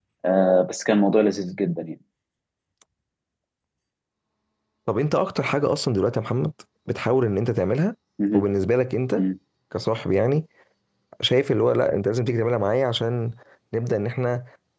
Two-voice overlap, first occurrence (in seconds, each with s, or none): none